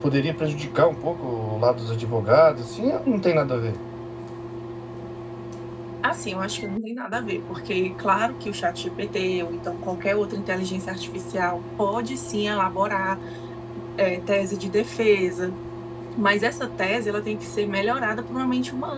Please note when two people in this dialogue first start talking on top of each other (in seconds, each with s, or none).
none